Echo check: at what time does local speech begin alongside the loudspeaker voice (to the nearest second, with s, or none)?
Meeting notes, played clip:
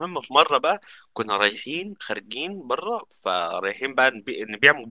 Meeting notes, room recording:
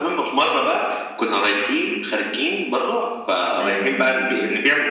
4 s